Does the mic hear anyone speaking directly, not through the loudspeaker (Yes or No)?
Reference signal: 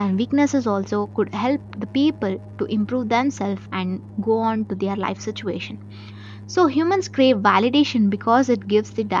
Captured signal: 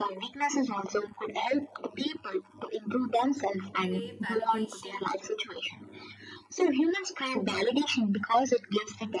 Yes